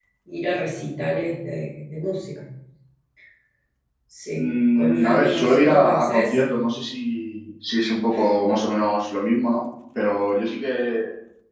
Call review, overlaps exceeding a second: present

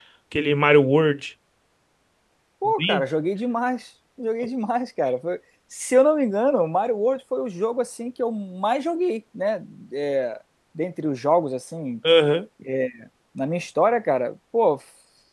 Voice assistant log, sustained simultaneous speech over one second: none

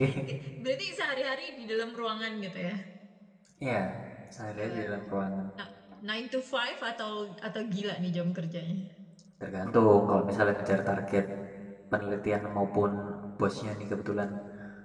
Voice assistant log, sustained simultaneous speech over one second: none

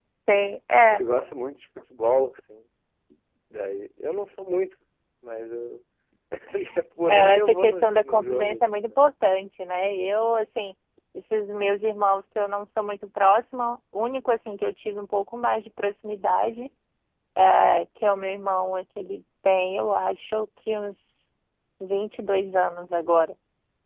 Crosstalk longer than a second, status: present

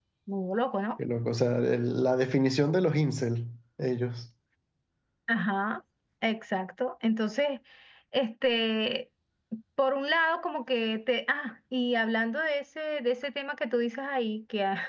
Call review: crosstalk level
none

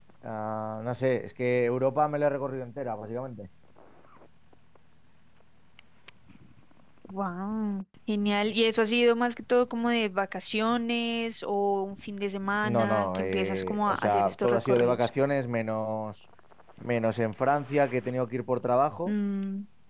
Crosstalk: present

